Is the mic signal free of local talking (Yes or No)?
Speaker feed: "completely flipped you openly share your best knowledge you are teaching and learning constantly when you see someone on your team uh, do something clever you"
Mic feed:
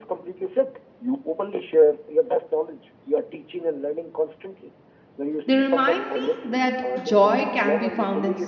No